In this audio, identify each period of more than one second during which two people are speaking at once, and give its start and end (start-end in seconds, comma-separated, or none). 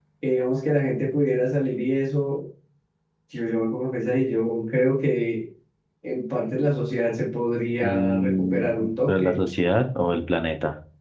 7.8-9.4